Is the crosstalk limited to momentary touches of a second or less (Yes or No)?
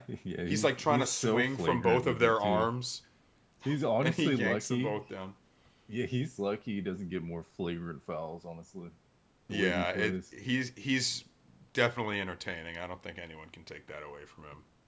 No